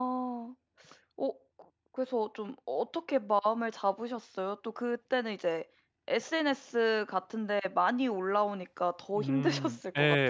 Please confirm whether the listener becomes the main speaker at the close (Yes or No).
Yes